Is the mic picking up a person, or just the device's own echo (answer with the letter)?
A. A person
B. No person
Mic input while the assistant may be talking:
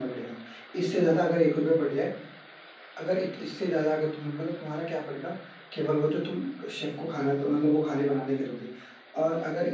B